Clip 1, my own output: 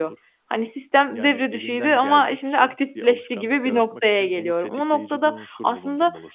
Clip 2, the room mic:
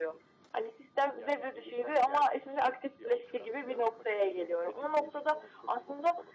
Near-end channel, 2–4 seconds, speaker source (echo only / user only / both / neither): echo only